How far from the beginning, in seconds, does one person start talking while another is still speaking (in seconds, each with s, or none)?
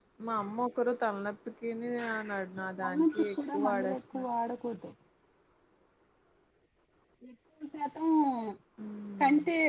2.8 s